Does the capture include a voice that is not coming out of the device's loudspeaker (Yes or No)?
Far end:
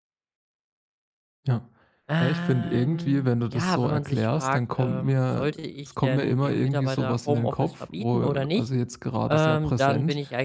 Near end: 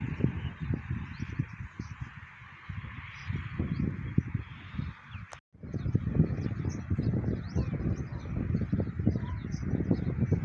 No